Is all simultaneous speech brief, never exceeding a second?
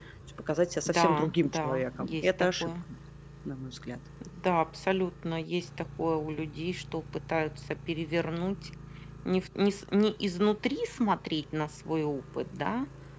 No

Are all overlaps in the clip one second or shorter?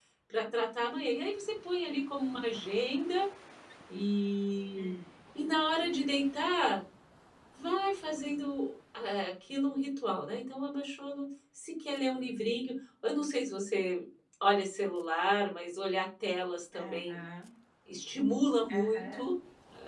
Yes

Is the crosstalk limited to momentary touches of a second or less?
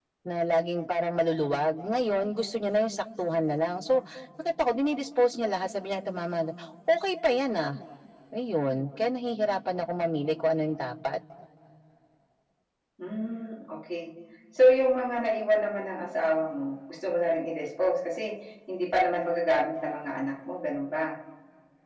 Yes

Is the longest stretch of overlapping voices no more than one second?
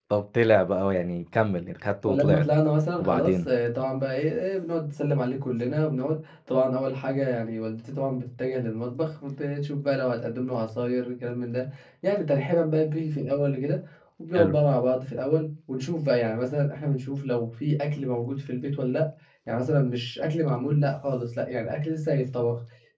Yes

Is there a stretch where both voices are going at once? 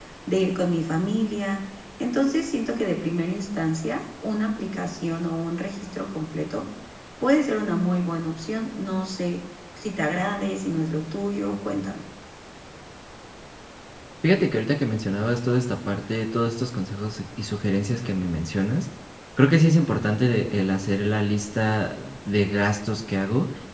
No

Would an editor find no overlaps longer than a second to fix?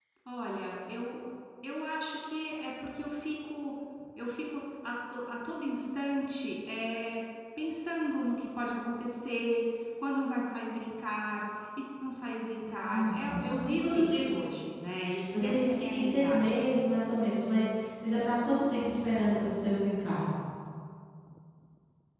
No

